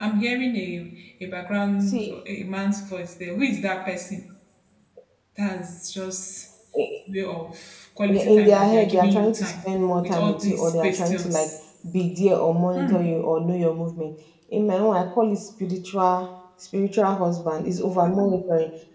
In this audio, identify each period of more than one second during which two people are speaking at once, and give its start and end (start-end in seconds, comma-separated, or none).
8.1-9.5, 10.0-11.5